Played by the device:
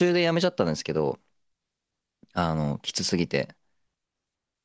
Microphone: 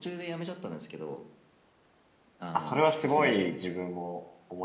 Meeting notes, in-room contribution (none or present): present